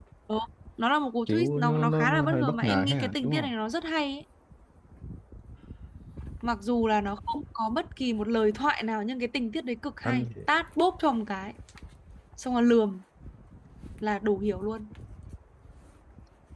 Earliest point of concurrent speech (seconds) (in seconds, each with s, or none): 1.3 s